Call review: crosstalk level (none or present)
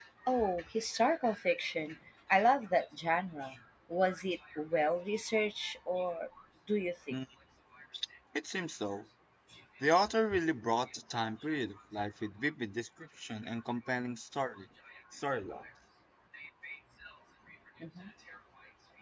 none